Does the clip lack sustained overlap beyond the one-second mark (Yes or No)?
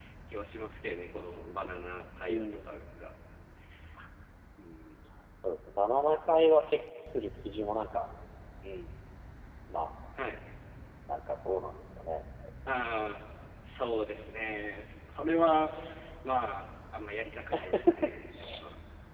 Yes